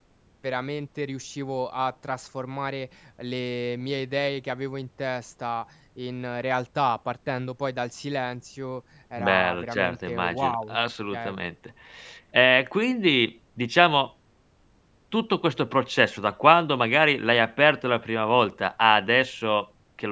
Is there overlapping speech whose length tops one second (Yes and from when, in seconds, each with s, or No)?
Yes, from 9.2 s